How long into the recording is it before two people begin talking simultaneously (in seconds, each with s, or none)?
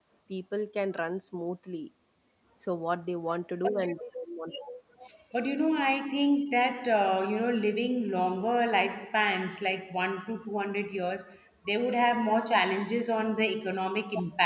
none